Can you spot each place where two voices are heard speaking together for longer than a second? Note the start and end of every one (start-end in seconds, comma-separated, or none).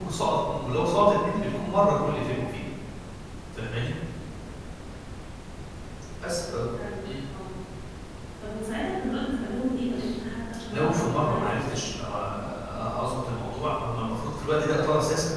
10.7-11.9